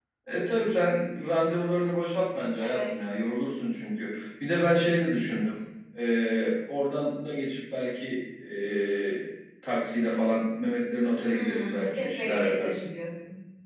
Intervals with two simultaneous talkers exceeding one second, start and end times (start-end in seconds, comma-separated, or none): 11.3-12.8